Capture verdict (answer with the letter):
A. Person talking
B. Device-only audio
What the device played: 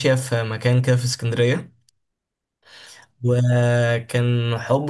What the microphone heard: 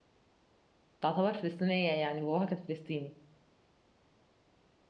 A